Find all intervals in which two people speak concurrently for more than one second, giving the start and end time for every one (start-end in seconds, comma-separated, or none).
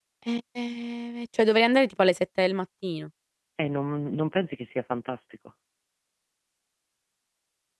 none